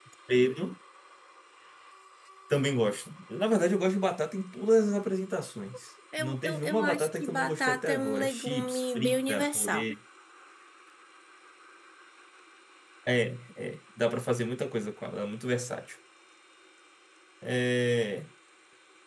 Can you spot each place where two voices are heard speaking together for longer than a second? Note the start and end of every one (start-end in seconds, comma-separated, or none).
6.2-9.8